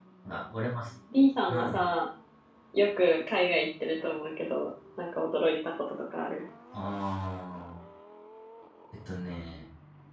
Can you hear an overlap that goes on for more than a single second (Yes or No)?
No